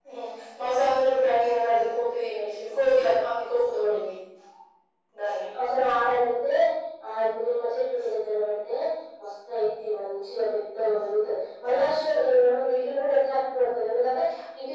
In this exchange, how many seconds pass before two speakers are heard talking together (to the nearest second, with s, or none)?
none